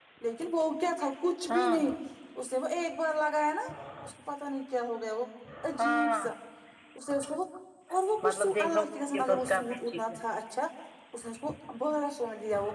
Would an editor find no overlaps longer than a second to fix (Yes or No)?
No